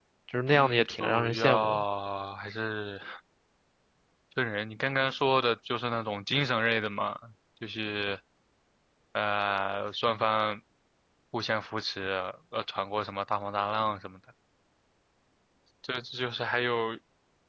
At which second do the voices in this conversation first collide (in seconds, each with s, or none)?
0.5 s